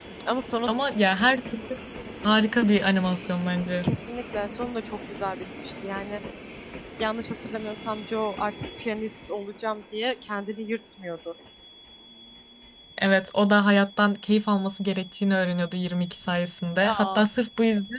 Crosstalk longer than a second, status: none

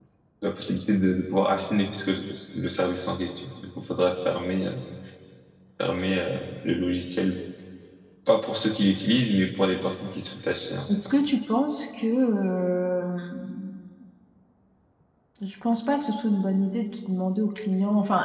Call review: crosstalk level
none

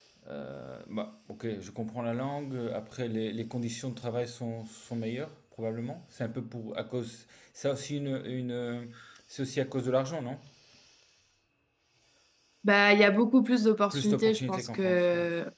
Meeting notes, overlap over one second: present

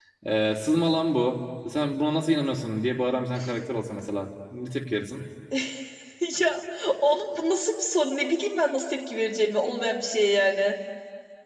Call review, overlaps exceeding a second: none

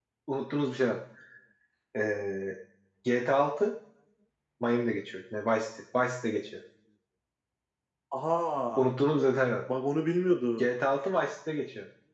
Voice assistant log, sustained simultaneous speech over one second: none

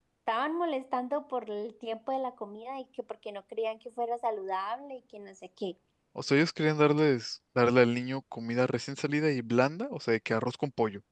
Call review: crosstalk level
none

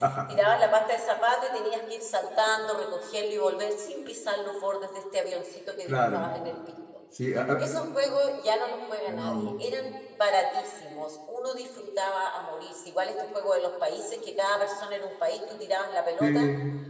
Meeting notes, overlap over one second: none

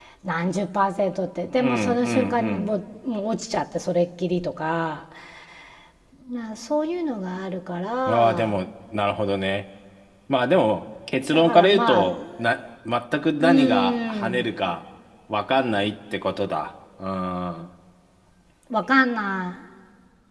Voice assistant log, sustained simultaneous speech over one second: present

